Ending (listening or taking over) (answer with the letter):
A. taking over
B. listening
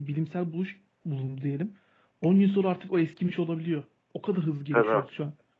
A